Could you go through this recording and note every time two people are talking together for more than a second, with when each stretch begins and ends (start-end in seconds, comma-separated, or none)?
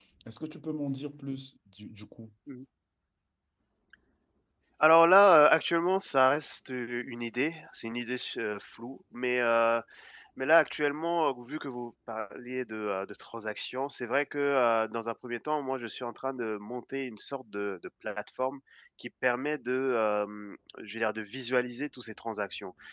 none